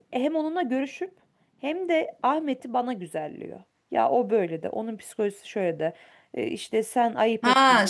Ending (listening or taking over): taking over